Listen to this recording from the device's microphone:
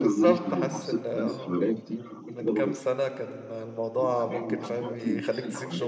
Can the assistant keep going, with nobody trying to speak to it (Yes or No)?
No